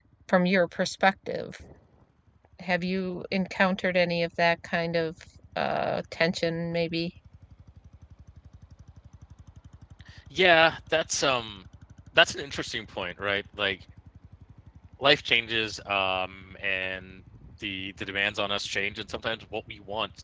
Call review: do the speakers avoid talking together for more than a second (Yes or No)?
Yes